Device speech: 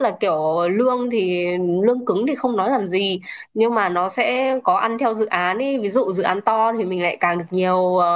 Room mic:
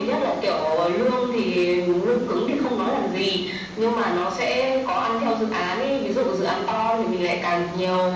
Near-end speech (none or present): none